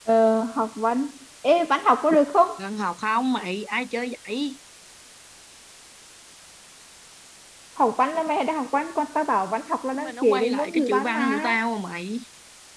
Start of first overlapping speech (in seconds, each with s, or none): 9.9 s